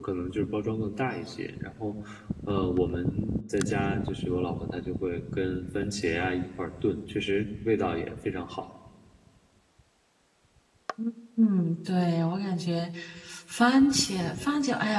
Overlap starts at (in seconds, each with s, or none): none